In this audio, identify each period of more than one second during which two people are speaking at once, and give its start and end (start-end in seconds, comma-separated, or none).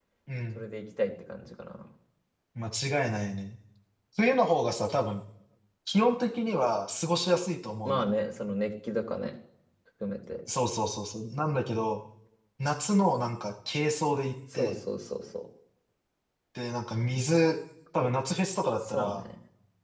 none